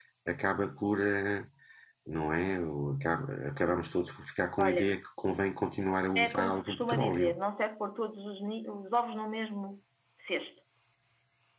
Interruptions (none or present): present